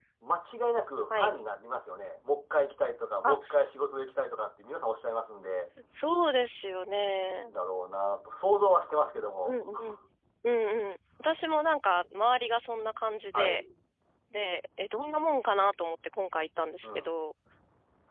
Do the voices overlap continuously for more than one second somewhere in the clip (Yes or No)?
No